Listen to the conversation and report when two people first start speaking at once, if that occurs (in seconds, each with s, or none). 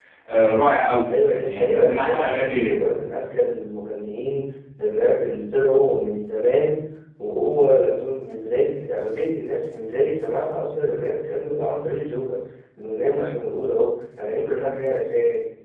1.1 s